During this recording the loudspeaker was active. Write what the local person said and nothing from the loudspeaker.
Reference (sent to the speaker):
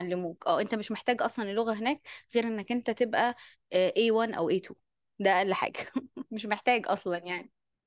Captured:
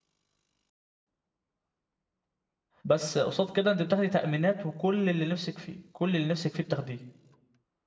بس قصاد كده انت بتاخدي تأمينات وكل اللي نفسك فيه كل اللي نفسك فيه بتاخديه

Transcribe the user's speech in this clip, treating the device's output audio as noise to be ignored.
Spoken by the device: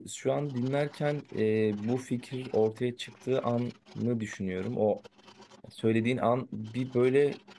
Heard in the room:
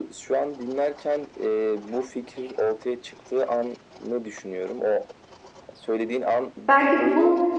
Belki bu

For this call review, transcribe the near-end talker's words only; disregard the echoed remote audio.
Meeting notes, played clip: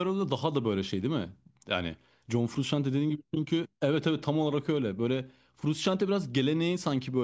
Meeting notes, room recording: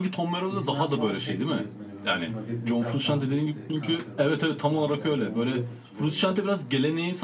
ismen falan hep biliyordum. Hani böyle magazinsel falan da işte kanser oldu şu bu falan haberleri onları hep hatırlıyorum yani.

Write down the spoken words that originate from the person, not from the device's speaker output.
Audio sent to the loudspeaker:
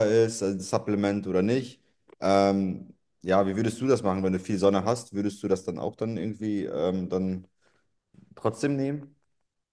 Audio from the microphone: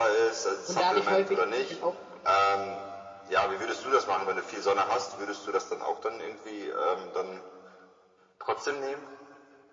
Und dadurch häufig halt auch.

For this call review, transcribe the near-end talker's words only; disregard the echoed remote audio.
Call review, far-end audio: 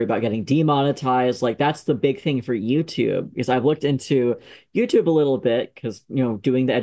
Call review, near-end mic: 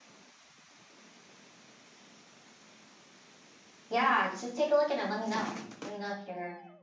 yeah, just take a look at it. Let me know. Let me know if you're

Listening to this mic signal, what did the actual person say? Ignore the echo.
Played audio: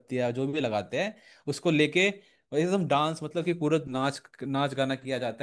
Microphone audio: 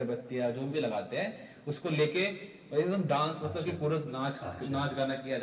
अच्छा अच्छा

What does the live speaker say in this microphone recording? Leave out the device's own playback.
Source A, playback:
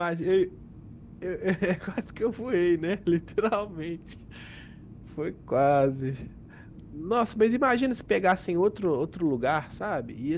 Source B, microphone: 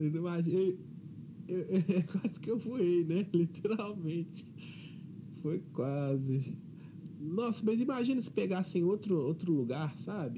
none

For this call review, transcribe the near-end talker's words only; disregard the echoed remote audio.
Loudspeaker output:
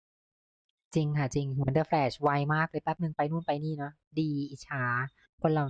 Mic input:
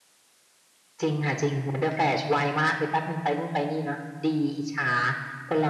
none

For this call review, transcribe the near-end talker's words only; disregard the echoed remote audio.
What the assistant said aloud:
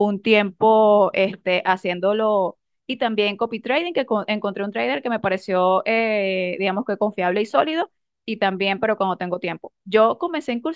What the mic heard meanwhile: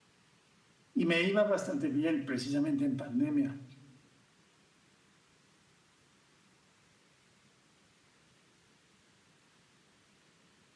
y me iba bastante bien precisamente en pandemia,

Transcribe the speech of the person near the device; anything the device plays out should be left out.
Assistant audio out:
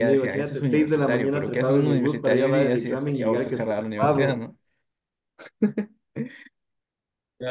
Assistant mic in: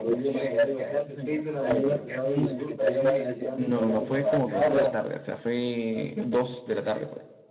no, no, no, fue como que en la tarde, o sea, fue dos de la tarde por ahí.

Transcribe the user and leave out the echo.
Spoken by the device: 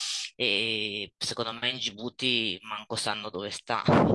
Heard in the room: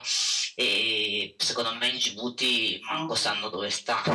Ah, Ok.

